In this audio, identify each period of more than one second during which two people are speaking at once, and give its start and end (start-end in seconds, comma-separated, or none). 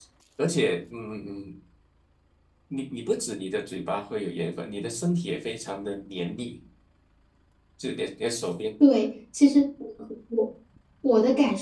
none